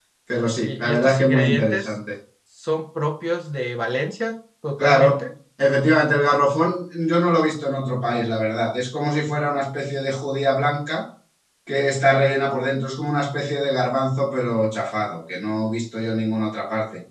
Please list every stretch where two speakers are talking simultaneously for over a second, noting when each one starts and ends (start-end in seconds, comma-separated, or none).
0.7-1.9